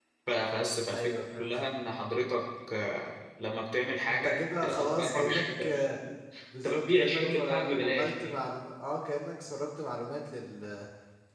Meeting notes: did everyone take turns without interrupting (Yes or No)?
No